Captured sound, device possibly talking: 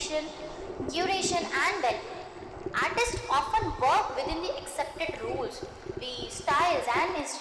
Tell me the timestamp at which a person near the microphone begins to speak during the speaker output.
none

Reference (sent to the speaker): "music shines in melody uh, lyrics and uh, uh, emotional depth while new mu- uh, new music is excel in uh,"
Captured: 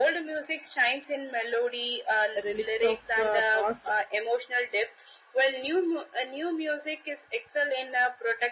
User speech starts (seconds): 2.4 s

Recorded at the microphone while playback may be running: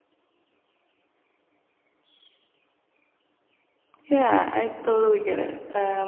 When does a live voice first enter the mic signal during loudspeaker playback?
4.1 s

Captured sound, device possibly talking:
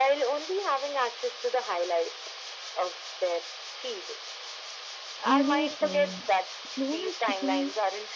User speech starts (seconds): 5.2 s

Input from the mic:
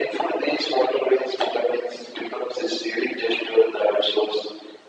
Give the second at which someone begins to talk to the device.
none

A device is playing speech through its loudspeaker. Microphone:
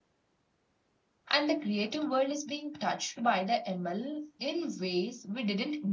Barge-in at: 1.3 s

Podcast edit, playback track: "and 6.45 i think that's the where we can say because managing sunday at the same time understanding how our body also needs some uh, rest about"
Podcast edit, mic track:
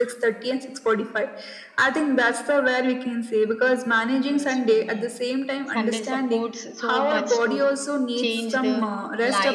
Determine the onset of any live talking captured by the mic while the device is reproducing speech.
4.3 s

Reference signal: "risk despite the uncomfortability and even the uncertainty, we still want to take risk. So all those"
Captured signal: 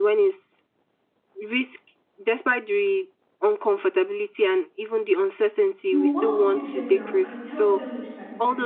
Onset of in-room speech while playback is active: 5.9 s

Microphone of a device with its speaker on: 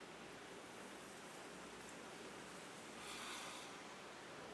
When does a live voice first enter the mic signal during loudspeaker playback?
none

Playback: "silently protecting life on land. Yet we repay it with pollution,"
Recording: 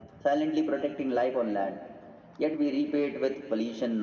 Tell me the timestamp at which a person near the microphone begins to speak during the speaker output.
none

